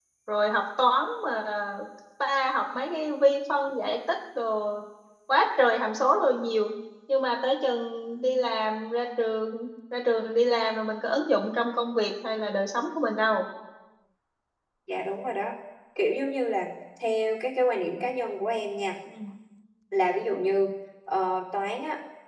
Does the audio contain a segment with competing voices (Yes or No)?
No